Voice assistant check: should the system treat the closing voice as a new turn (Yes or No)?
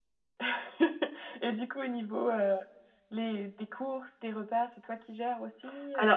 Yes